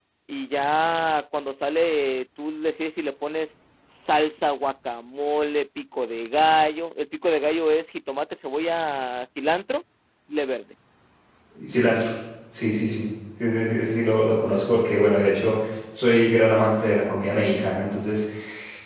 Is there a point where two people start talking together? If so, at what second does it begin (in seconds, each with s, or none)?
none